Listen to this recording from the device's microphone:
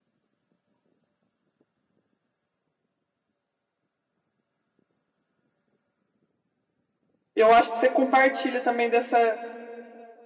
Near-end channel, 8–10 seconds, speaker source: user only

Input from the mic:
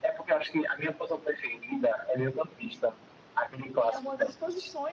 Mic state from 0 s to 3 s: echo only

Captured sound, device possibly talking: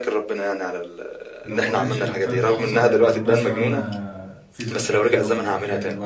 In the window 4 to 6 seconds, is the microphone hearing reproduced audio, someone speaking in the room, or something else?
both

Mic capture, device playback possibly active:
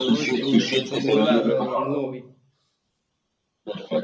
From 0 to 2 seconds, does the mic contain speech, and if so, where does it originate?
both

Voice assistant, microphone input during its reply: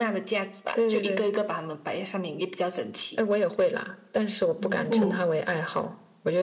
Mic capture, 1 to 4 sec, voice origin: echo only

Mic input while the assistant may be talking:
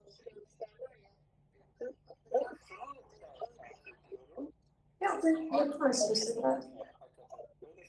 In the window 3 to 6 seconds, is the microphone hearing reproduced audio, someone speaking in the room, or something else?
both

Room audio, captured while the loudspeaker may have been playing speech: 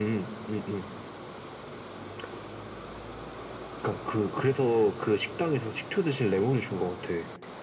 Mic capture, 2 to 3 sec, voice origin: neither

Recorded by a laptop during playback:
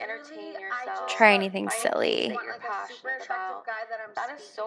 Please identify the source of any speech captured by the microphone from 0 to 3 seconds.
both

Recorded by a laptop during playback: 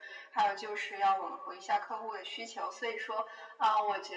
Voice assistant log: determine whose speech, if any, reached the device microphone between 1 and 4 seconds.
echo only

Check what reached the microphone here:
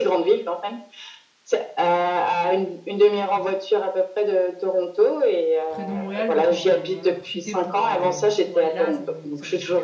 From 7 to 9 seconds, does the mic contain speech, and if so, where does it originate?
both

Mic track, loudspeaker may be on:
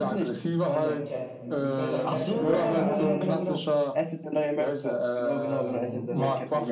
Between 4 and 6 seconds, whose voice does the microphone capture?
echo only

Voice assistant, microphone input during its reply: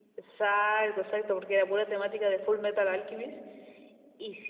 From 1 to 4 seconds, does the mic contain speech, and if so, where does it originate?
echo only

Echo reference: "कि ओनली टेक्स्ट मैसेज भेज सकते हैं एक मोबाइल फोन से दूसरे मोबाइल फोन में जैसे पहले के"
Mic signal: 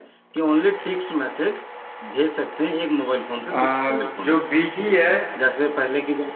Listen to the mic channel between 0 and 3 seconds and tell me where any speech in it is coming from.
echo only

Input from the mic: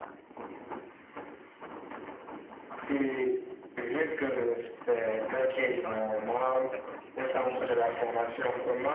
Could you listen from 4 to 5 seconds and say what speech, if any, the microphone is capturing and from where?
echo only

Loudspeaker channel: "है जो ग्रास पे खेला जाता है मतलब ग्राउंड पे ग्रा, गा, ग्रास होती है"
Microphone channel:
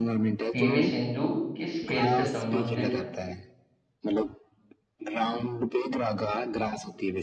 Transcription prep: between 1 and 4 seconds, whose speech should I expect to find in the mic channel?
both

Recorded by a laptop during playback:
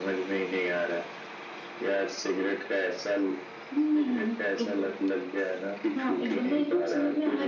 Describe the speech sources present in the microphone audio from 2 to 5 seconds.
echo only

